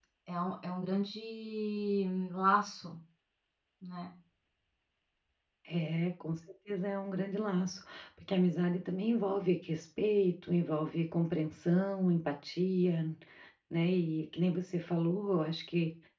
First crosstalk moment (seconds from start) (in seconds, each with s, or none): none